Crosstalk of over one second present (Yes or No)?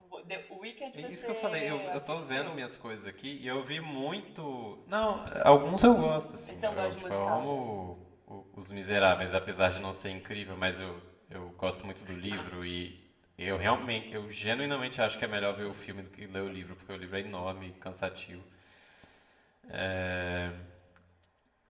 Yes